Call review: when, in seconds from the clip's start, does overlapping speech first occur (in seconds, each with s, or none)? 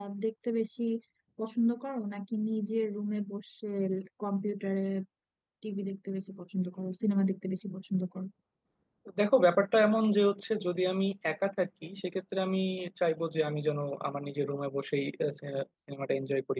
none